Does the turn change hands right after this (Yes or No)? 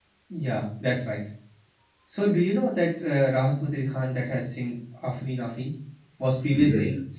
No